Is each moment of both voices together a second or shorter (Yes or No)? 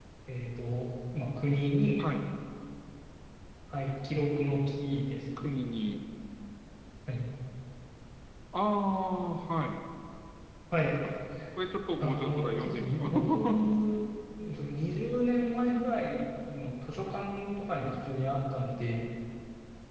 No